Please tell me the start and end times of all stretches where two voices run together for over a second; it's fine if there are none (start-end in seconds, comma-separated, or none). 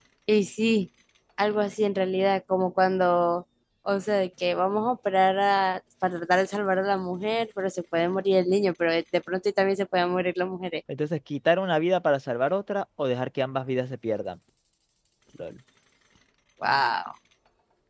none